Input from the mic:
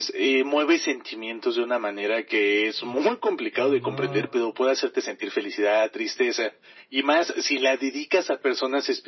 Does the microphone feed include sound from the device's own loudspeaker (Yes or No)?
Yes